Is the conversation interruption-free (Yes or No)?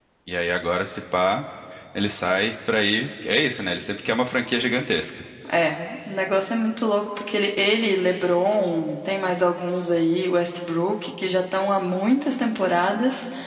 Yes